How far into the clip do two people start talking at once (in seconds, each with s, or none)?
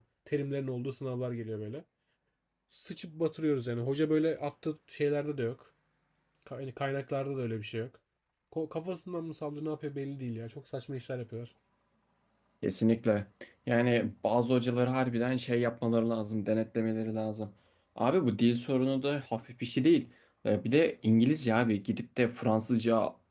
none